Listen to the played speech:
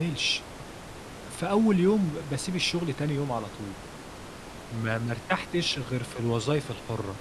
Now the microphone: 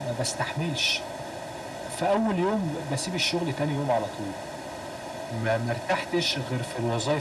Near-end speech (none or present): none